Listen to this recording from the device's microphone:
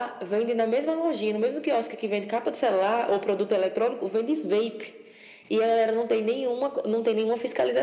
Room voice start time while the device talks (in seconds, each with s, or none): none